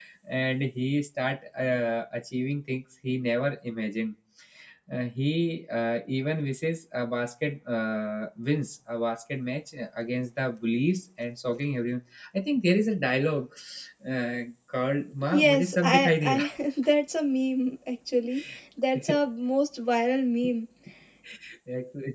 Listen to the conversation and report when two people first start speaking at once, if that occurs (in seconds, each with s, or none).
15.3 s